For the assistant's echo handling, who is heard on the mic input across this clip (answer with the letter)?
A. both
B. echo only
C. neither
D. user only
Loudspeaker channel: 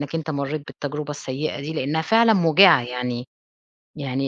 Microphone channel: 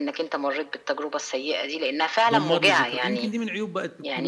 A